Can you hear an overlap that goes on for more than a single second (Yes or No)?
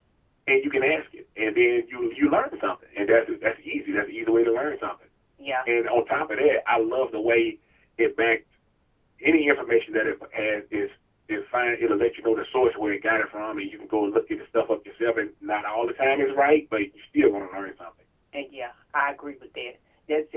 No